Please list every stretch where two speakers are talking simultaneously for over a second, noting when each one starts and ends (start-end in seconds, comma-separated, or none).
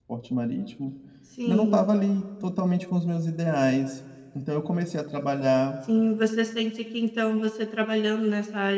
none